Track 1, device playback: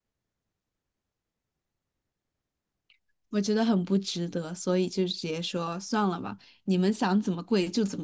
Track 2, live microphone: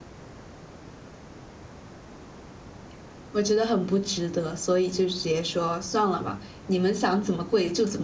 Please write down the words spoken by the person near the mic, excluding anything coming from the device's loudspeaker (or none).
none